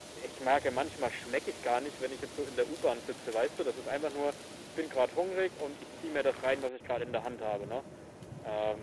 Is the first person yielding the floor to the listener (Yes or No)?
No